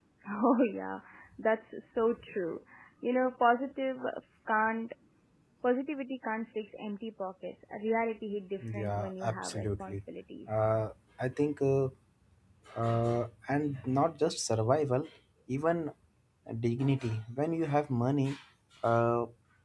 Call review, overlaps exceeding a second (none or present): present